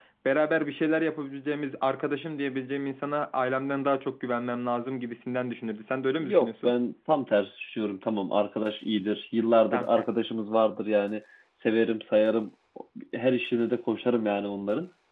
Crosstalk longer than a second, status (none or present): none